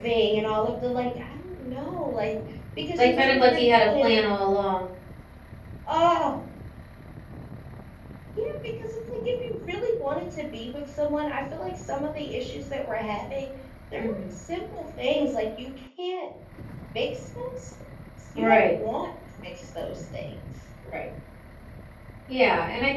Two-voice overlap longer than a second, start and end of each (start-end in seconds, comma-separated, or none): 3.0-4.2